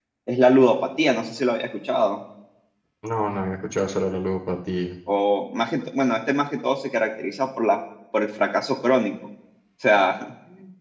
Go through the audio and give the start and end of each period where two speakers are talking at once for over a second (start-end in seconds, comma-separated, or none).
none